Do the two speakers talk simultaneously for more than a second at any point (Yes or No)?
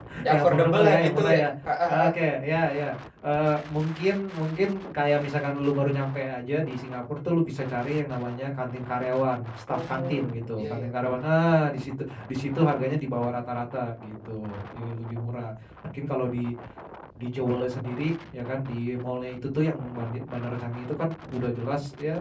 Yes